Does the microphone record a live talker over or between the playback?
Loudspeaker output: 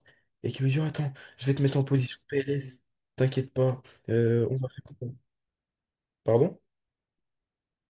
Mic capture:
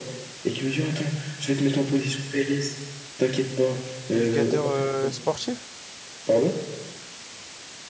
Yes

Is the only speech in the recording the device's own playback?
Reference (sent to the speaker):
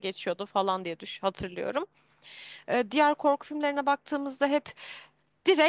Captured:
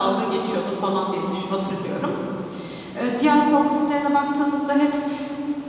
Yes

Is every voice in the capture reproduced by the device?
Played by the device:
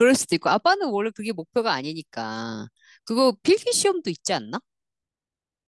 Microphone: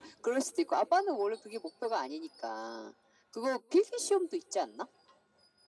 Yes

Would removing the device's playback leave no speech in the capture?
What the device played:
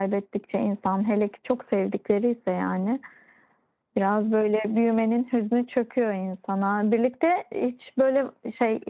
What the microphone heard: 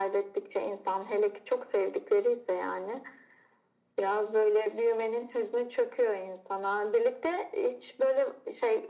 Yes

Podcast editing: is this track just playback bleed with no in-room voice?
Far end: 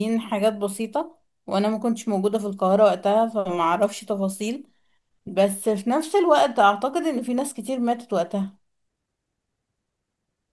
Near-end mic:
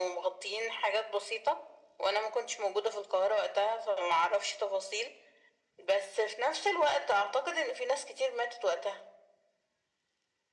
Yes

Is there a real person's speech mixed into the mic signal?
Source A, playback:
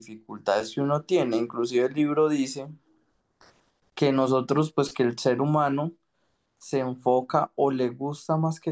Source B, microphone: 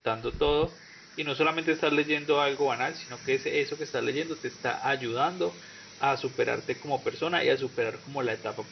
Yes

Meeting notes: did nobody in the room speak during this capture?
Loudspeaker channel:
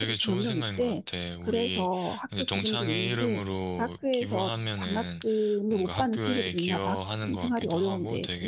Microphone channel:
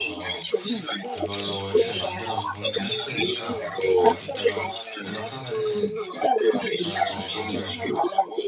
No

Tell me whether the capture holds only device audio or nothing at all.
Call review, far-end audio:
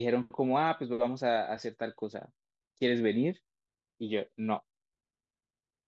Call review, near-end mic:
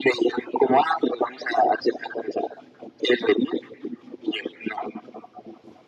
Yes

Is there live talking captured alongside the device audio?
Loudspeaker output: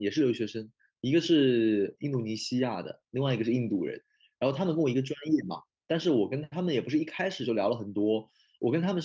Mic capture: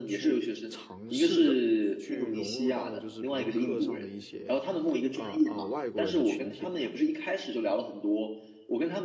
Yes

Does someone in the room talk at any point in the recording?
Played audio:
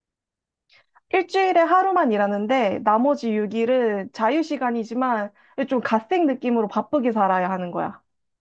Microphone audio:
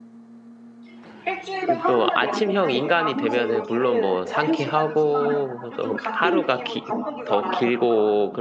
Yes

